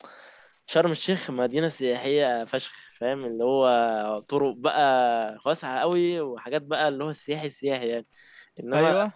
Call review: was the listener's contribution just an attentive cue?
Yes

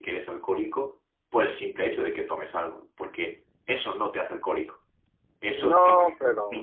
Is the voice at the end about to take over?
No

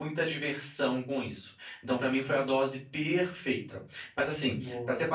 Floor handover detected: No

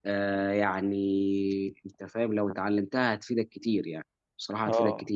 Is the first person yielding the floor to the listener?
Yes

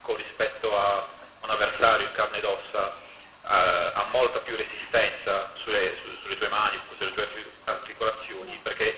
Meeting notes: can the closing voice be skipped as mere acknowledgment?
Yes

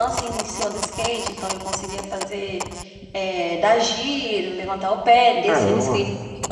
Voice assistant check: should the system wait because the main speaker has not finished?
Yes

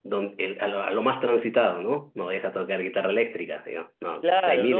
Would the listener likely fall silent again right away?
No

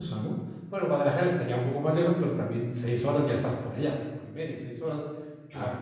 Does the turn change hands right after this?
No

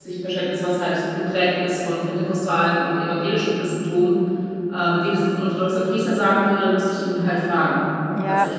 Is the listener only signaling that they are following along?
No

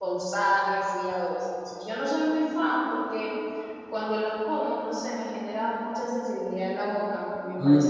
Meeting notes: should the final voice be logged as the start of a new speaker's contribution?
Yes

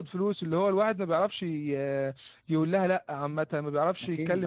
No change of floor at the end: Yes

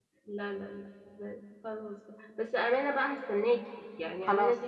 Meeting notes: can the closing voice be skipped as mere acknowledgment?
Yes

